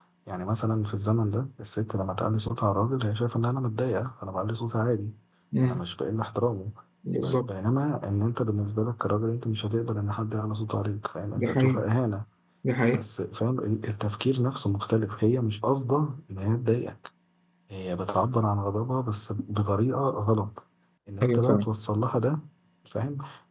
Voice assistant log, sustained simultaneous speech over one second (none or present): none